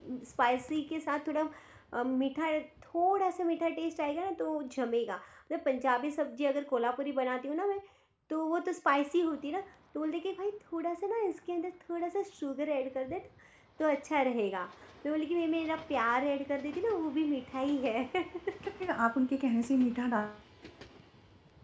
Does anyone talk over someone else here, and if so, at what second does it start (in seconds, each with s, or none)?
none